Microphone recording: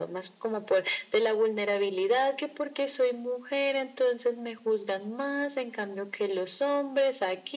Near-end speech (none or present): none